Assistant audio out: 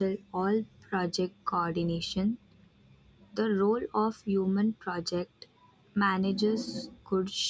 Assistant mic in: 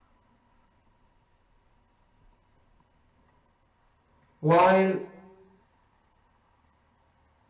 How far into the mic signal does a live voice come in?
4.4 s

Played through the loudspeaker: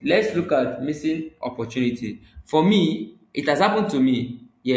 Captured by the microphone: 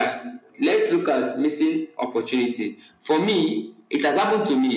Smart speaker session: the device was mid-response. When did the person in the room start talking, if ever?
none

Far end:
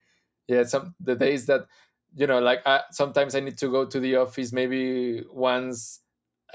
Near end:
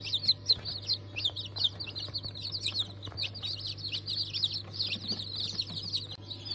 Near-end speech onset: none

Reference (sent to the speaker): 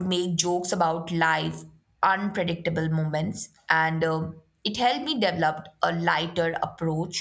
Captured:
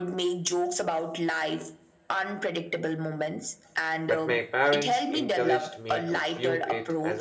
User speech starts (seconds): 4.0 s

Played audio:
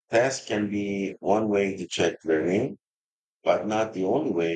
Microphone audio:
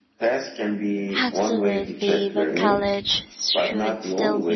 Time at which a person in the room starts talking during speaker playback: 1.2 s

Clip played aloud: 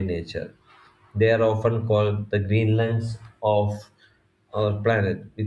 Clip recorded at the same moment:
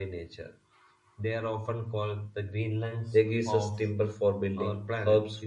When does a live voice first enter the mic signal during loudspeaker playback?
3.1 s

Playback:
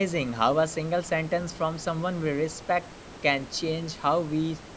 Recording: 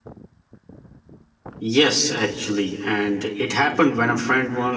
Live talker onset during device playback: 1.6 s

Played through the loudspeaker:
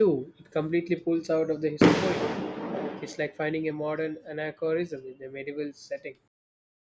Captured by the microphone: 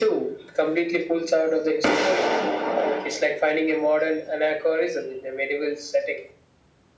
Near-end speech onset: none

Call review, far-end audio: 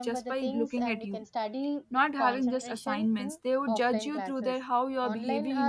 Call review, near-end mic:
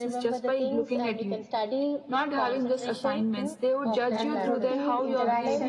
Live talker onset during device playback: 4.2 s

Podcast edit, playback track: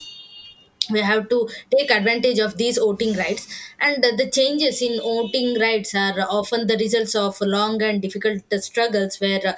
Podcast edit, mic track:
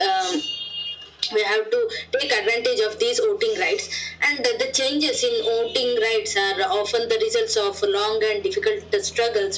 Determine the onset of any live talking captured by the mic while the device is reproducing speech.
none

